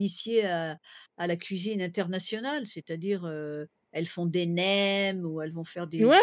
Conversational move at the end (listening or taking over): taking over